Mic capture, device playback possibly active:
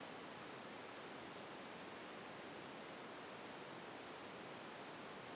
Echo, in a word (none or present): none